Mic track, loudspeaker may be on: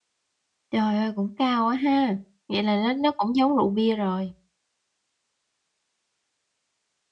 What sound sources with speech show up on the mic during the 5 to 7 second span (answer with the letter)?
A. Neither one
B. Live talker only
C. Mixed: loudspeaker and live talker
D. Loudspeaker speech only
A